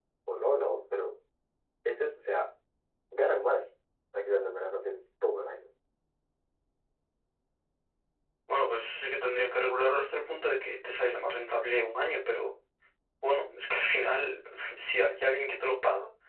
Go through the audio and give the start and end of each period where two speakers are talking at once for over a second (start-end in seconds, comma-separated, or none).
none